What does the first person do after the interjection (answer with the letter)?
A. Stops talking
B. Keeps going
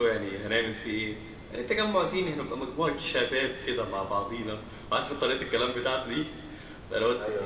B